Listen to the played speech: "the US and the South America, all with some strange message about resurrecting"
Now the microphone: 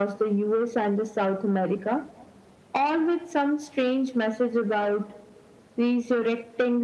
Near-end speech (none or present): none